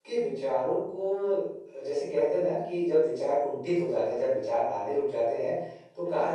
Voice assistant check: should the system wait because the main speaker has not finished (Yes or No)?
Yes